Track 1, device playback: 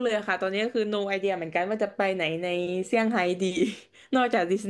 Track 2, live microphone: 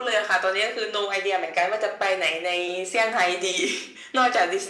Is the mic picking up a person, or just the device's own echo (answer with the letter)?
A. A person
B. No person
B